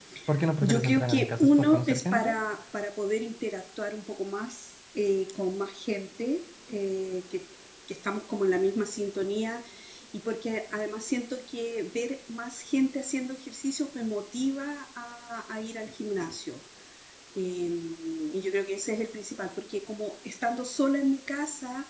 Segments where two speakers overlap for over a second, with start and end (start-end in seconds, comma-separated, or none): 0.6-2.3